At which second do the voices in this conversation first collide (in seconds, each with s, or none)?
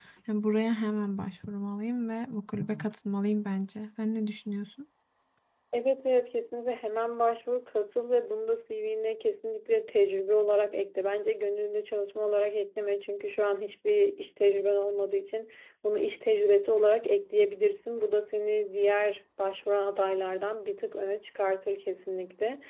none